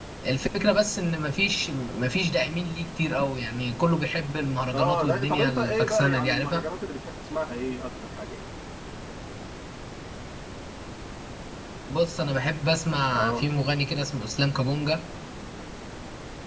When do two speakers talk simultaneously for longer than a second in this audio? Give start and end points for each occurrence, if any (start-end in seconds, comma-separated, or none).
4.7-6.6